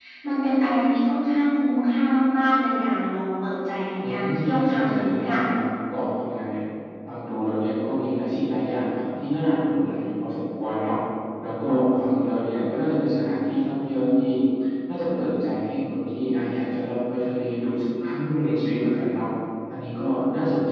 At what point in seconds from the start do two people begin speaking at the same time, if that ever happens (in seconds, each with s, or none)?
4.0 s